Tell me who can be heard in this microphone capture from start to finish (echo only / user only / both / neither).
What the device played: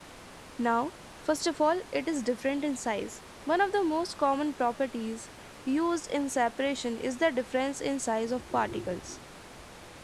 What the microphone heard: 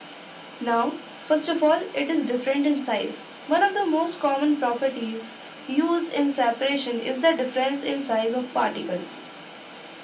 echo only